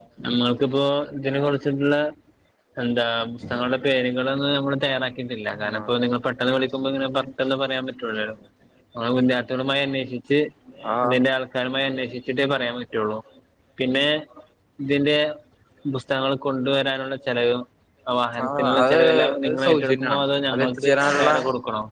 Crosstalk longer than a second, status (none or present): present